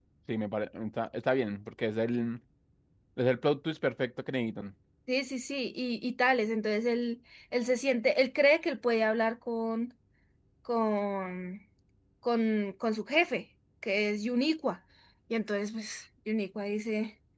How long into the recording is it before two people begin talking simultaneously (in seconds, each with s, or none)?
none